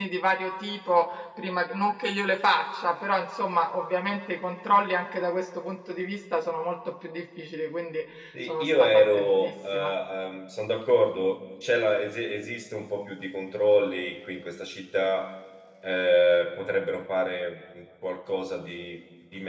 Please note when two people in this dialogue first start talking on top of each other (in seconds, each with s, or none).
8.3 s